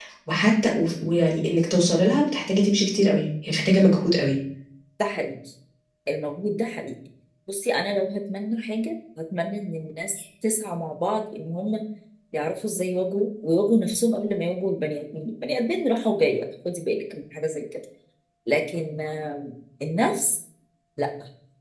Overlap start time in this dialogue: none

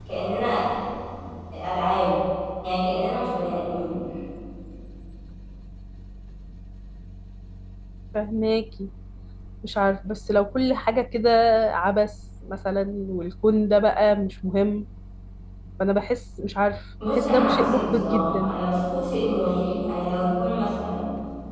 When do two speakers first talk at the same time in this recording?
17.0 s

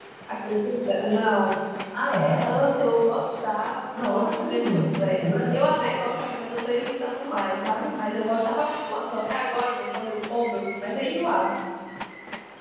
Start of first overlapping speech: 3.9 s

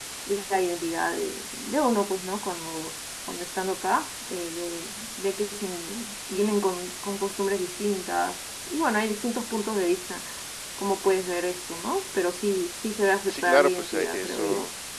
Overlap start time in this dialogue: 13.3 s

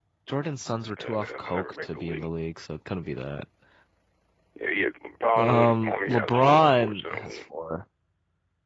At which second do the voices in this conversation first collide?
1.0 s

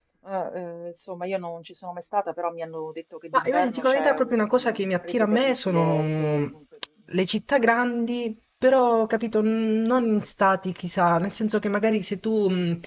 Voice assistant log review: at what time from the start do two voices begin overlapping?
3.3 s

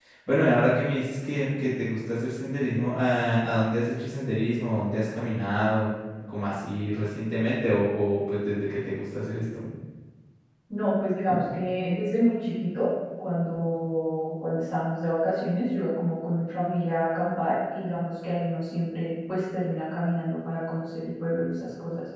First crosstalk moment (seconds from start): none

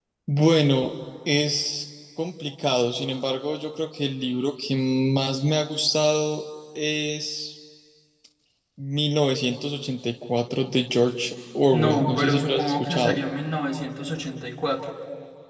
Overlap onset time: 11.7 s

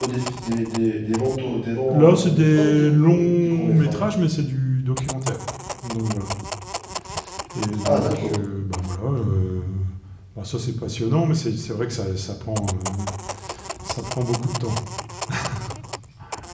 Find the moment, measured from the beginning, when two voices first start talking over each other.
1.9 s

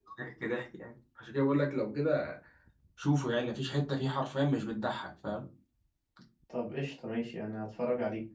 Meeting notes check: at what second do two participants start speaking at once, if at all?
none

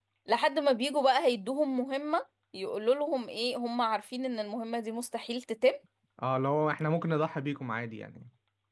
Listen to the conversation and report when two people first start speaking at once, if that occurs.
none

